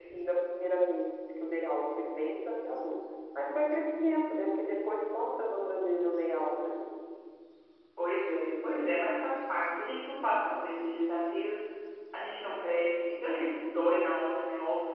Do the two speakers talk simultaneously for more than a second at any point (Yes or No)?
No